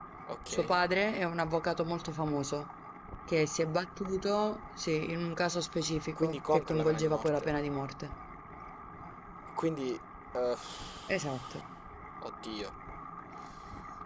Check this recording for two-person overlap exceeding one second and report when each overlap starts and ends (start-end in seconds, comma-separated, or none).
6.2-7.5